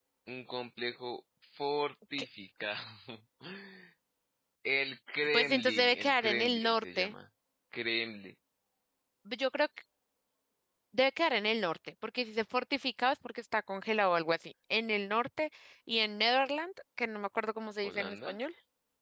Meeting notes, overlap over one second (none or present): present